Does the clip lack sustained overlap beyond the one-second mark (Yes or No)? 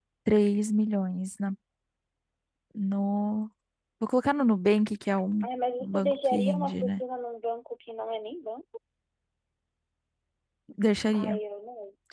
No